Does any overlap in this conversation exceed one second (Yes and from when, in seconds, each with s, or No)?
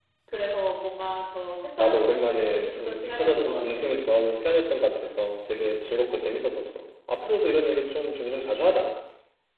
Yes, from 1.8 s